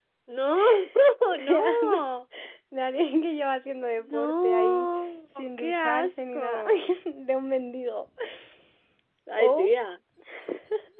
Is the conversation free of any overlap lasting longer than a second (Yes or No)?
No